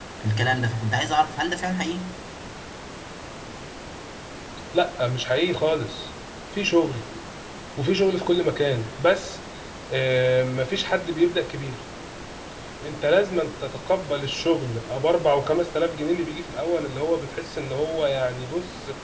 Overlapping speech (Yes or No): No